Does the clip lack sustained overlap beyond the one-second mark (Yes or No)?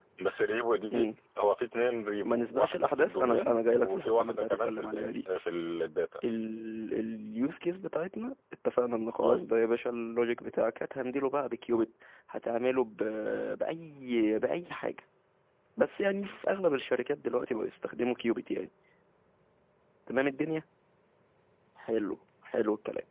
No